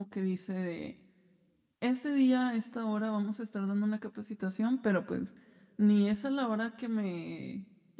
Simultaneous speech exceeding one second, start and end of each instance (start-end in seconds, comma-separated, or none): none